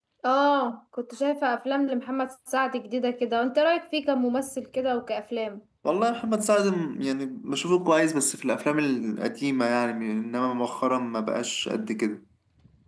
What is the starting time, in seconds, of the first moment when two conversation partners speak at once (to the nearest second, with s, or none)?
none